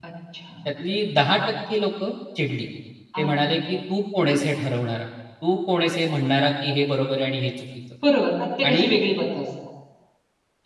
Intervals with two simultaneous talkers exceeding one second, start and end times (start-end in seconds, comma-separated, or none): none